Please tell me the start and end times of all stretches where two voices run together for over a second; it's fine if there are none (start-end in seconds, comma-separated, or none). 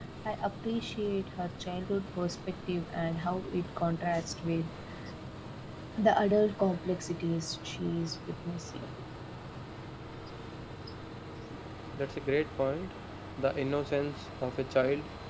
none